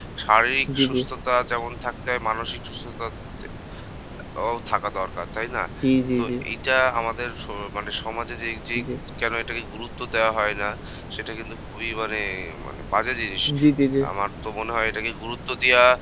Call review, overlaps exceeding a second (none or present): none